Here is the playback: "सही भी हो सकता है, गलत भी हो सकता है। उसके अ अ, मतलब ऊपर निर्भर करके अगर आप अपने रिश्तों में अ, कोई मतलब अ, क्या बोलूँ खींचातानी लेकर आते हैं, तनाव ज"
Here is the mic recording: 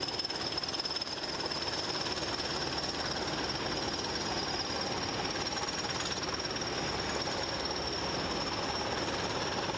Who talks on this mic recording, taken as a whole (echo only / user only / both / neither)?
neither